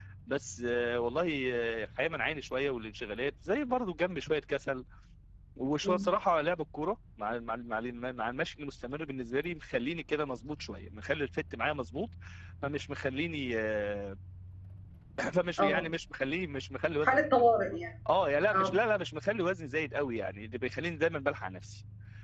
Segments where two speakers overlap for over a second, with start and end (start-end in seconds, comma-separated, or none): none